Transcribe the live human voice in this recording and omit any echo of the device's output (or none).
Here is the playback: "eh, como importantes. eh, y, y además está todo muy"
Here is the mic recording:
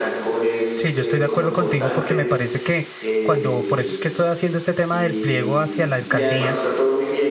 Sí, yo estoy de acuerdo contigo porque me parece que cuando, por eso es que estoy haciendo este tema del pliego hacia la alcaldía,